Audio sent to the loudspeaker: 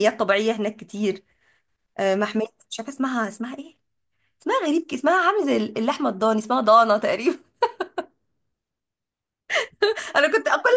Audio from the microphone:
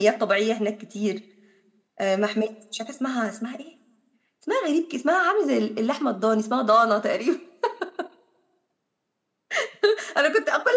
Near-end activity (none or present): none